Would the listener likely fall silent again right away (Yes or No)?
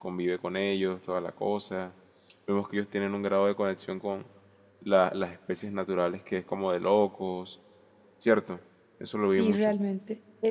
No